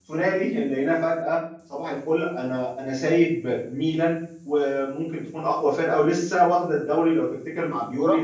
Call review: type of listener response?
listening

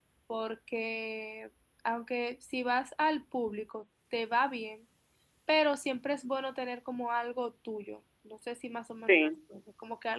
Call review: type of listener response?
listening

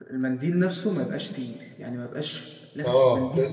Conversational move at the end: taking over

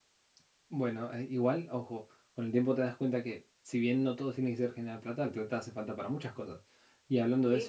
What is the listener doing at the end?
listening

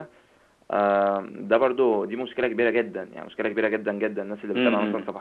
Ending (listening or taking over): listening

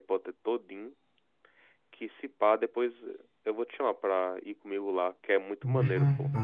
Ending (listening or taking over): taking over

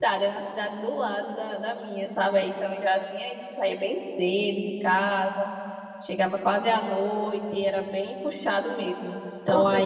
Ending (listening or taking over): listening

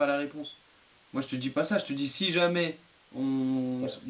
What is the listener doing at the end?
taking over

